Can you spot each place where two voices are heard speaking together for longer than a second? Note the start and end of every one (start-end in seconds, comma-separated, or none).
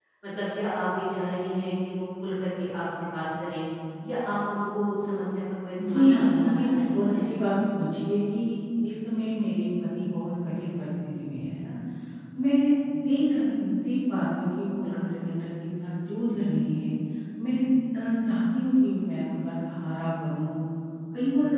5.9-7.1